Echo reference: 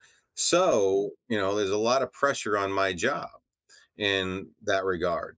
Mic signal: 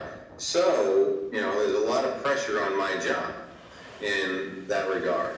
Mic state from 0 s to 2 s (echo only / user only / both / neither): echo only